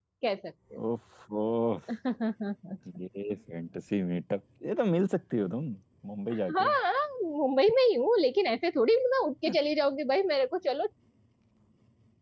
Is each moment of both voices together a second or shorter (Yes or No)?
Yes